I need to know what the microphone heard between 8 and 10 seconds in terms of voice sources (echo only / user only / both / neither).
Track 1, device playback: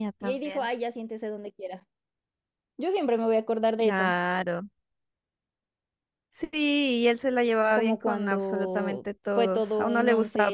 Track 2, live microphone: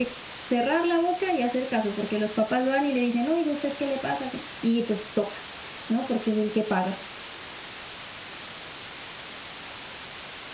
neither